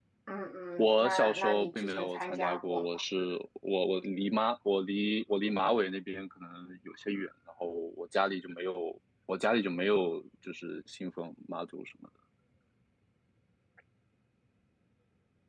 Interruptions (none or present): present